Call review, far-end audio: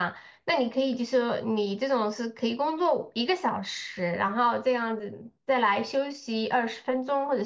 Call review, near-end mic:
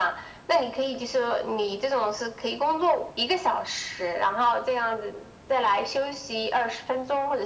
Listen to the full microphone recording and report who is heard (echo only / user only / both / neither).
echo only